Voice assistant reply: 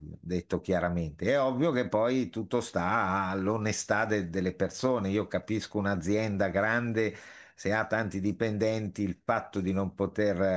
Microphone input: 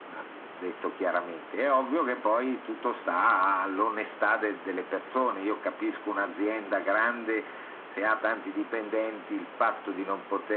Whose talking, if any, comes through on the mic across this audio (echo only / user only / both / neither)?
echo only